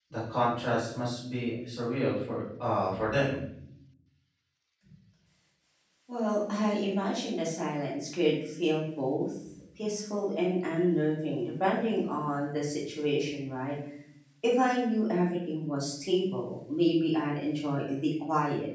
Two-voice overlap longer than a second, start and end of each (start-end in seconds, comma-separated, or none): none